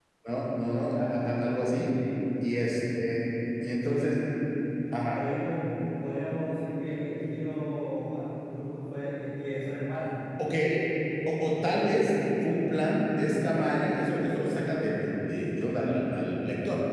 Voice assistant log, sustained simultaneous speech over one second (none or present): none